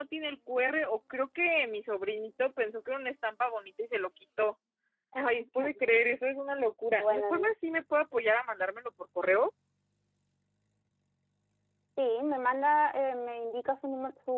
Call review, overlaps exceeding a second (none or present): none